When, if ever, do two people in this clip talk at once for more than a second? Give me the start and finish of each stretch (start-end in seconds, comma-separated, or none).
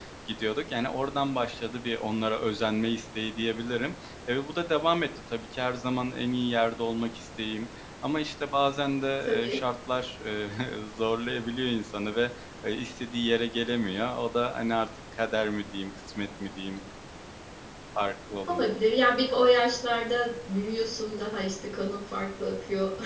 none